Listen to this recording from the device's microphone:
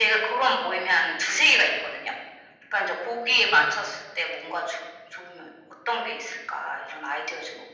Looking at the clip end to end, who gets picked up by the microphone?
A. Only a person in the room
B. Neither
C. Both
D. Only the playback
D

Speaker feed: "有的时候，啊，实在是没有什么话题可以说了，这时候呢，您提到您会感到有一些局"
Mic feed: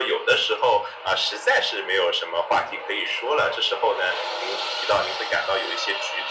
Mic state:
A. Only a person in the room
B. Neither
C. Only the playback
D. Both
C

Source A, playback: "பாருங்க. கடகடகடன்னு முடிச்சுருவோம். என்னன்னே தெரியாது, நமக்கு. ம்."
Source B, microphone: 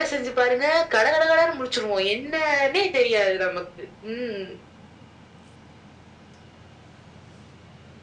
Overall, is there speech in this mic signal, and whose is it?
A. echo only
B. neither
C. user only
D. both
A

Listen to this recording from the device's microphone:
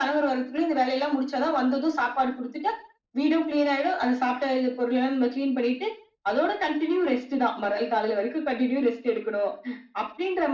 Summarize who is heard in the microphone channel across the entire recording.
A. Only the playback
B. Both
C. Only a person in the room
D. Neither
A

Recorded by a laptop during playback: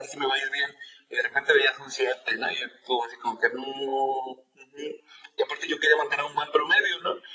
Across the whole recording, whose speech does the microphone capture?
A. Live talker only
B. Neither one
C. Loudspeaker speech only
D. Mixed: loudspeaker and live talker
C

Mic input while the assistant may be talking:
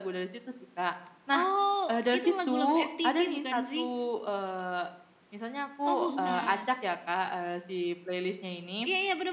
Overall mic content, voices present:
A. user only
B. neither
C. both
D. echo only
C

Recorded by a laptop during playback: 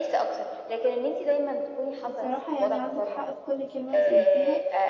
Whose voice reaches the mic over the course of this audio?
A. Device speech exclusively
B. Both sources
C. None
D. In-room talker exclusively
B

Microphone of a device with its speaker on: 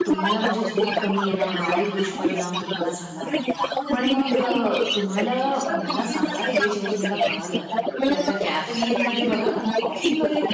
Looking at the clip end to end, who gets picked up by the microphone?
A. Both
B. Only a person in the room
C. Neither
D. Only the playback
A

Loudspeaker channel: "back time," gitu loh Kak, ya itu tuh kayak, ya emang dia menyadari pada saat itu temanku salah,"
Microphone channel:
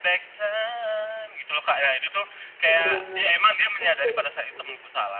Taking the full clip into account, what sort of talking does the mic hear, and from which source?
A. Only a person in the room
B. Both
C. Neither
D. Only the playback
B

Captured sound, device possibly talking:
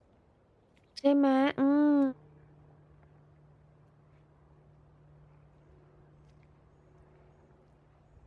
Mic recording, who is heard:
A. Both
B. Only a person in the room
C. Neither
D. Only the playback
B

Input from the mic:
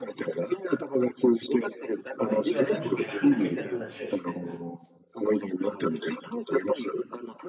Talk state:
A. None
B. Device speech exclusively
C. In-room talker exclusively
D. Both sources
D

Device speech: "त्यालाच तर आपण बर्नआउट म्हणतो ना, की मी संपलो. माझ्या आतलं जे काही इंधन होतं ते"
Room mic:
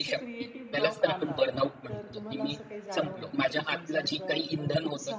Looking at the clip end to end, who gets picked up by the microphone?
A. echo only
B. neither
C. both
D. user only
C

